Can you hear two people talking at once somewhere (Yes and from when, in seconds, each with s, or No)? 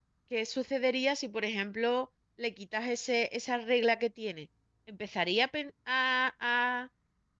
No